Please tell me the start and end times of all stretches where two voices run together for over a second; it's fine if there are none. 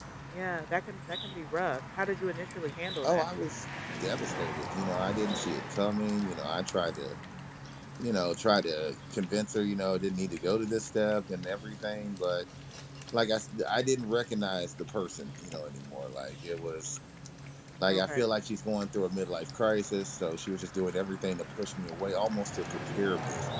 none

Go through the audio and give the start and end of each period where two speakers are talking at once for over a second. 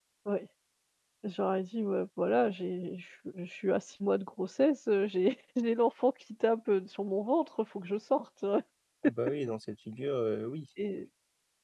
none

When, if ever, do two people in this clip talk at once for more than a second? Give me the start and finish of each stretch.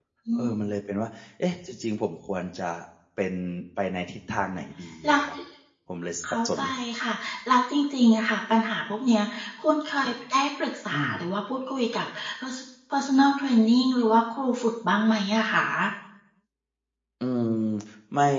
none

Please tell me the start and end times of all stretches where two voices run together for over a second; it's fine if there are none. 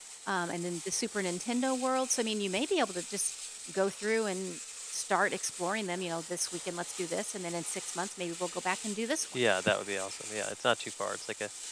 none

